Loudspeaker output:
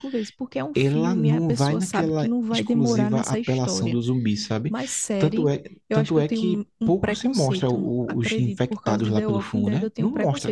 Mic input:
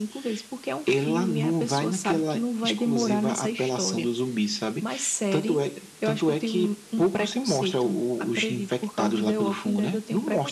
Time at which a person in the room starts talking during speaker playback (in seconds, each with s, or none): none